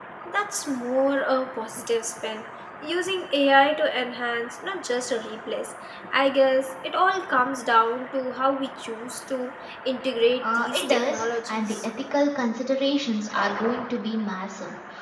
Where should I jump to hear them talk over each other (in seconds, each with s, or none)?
10.4 s